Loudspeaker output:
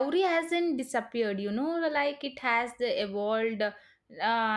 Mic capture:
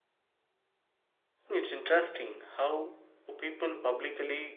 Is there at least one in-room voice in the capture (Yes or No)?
Yes